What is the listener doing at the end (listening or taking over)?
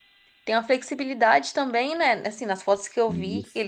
listening